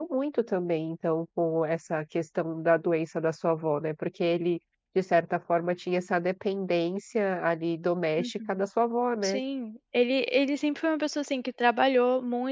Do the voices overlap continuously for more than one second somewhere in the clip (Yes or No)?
No